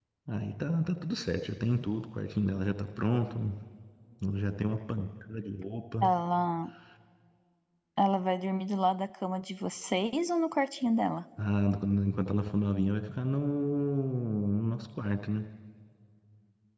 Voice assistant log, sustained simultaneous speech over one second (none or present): none